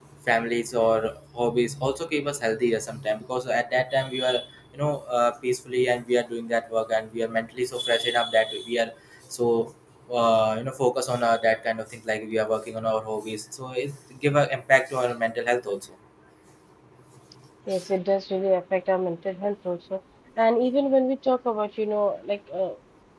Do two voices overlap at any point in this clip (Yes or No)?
No